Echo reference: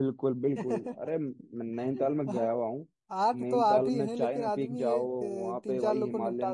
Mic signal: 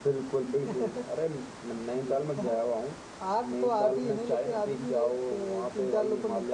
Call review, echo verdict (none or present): present